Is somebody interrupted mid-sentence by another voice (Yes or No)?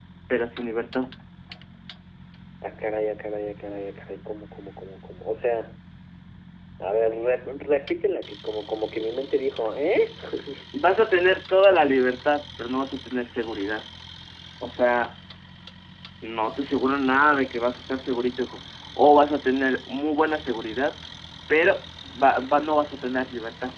No